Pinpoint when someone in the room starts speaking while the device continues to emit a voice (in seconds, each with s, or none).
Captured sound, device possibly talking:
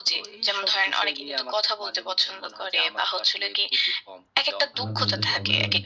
4.8 s